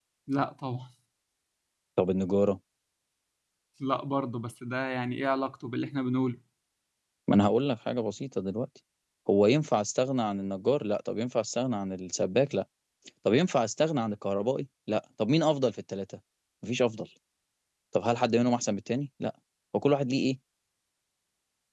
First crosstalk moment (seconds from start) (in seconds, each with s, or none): none